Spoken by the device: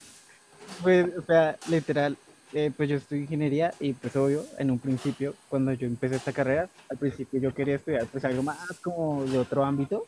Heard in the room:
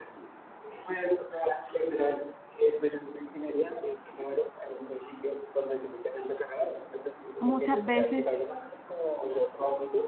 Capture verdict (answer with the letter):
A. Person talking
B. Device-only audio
A